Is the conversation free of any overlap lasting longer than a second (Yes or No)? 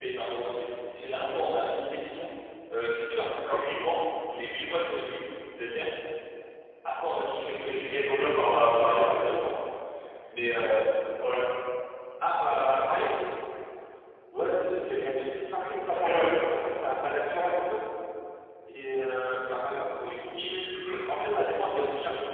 No